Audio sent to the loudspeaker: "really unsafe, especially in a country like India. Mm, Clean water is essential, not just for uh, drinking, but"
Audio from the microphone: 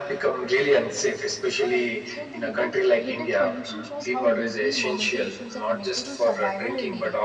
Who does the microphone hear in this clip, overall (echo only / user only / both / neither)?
both